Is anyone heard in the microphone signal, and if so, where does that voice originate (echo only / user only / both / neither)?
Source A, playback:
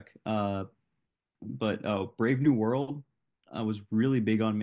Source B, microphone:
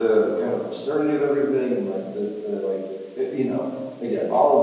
user only